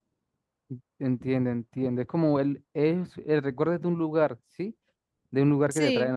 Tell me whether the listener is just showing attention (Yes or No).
Yes